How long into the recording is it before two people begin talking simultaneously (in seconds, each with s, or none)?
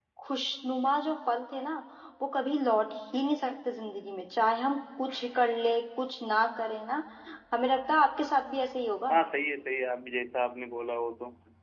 none